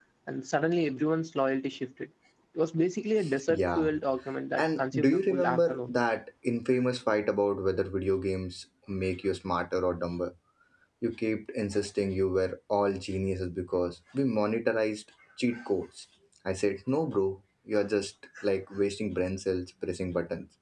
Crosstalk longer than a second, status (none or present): present